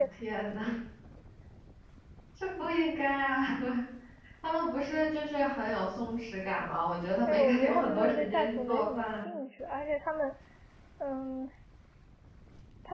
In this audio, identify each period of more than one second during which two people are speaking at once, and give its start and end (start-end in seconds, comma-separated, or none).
7.3-9.3